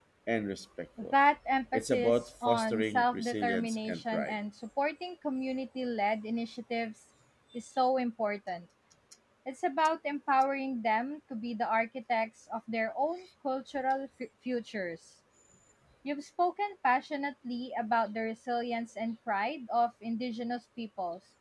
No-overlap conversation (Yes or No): No